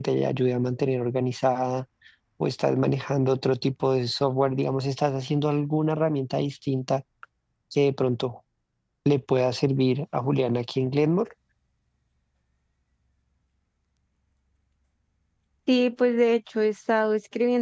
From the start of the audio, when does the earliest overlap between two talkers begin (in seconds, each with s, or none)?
none